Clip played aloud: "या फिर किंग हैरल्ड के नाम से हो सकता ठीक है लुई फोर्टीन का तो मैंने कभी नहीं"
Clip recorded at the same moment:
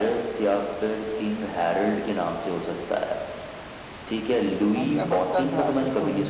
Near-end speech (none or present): present